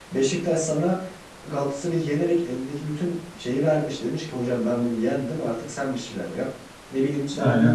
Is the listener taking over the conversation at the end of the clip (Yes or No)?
No